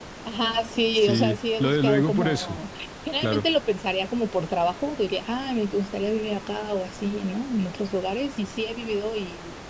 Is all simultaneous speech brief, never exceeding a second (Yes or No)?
No